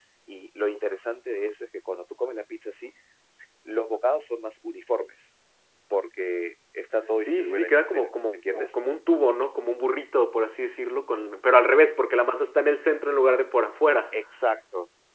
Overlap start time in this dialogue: 7.2 s

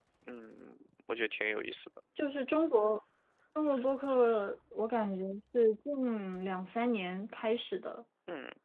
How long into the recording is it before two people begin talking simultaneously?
none

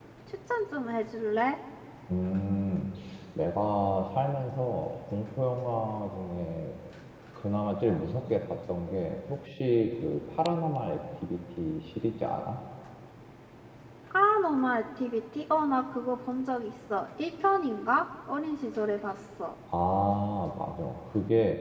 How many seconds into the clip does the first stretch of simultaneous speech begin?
none

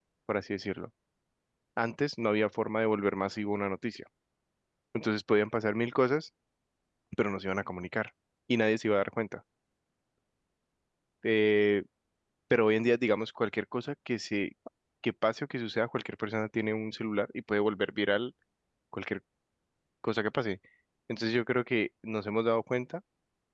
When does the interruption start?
none

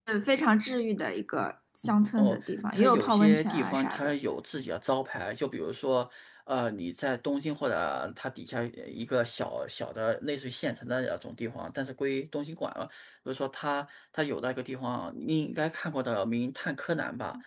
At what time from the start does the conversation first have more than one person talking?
2.2 s

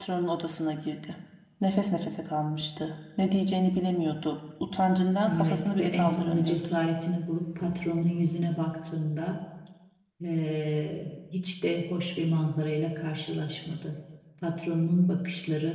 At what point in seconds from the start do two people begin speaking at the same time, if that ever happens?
5.3 s

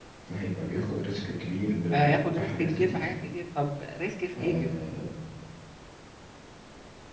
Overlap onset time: 1.9 s

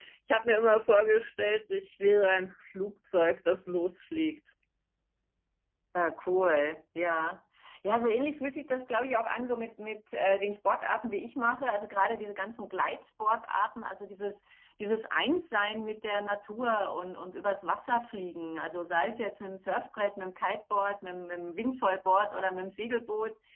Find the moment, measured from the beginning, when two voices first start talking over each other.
none

